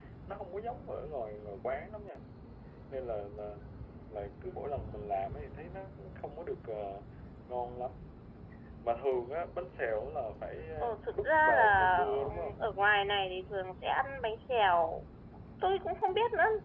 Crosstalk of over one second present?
Yes, from 10.8 s

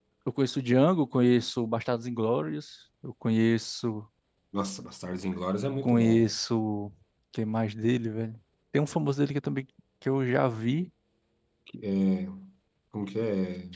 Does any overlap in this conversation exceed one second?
No

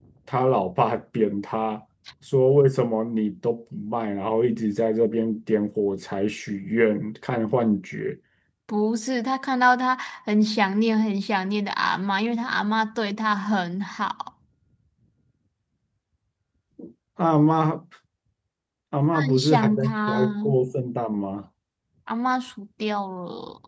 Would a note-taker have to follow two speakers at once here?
Yes, from 19.1 s

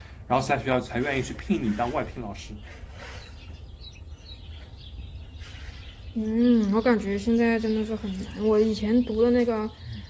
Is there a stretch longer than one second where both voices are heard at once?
No

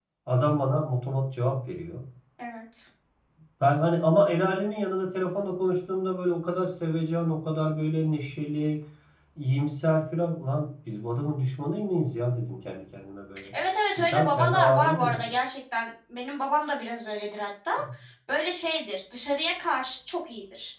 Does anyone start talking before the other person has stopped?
Yes, from 14.0 s

